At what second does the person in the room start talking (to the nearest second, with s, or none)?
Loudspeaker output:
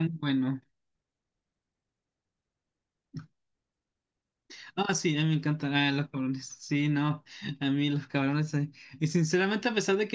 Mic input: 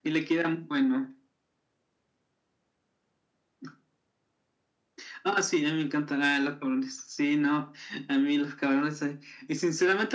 none